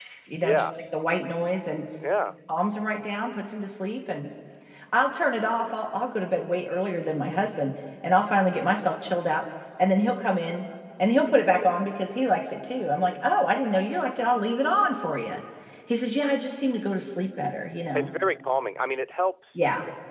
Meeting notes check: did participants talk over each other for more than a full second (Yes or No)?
No